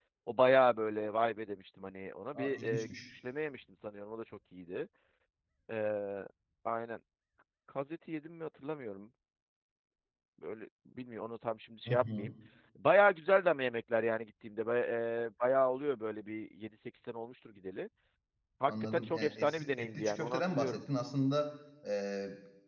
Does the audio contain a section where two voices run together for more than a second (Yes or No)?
Yes